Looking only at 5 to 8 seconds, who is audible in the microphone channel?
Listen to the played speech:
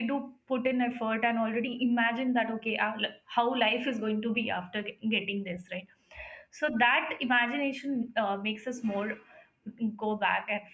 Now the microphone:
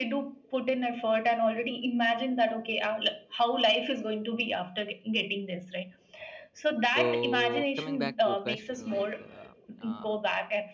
both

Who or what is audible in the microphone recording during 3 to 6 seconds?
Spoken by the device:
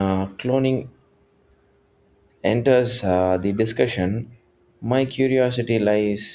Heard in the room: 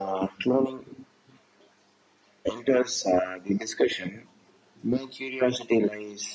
echo only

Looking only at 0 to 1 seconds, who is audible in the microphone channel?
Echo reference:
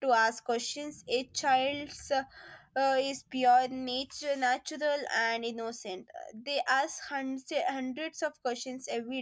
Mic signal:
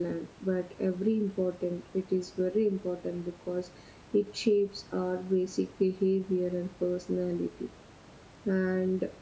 user only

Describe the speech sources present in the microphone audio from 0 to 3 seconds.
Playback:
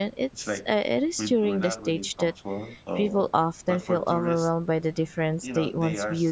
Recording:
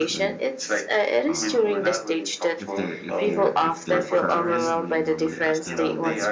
both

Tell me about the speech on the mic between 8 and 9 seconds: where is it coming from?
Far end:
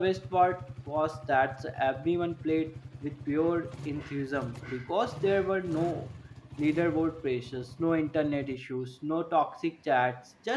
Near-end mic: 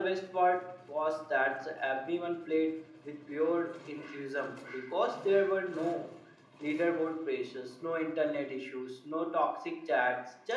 echo only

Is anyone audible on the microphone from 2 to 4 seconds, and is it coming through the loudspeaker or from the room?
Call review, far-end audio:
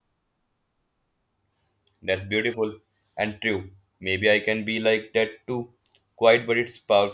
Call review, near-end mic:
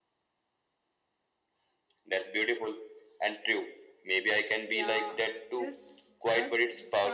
echo only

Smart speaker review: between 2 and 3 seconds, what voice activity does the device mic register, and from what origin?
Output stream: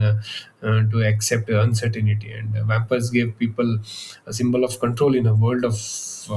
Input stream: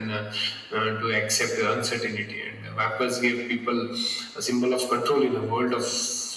echo only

